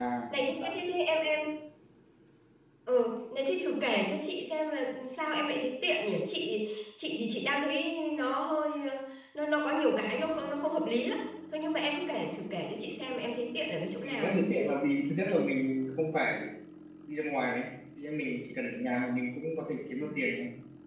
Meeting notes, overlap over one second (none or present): none